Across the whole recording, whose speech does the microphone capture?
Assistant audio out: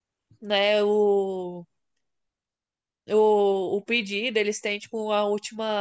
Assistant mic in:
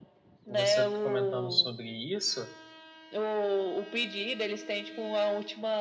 both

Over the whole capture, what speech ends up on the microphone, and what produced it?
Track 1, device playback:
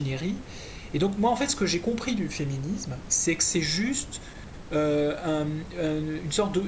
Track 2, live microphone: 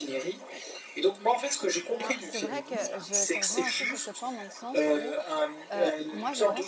both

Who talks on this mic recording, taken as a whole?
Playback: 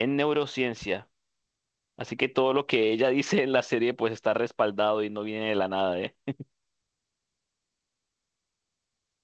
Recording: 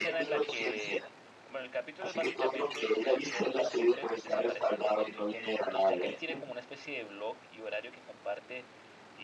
both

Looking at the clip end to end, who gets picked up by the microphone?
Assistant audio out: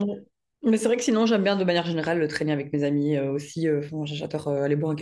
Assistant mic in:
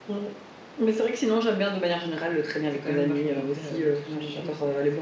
both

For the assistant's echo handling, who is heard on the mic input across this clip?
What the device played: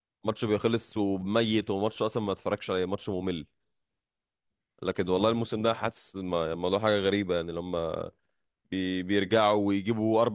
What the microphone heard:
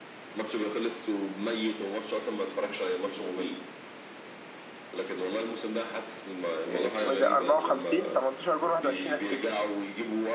both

